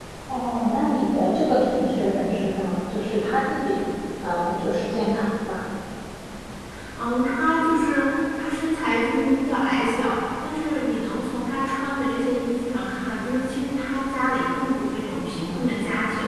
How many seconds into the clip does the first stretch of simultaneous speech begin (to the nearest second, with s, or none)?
none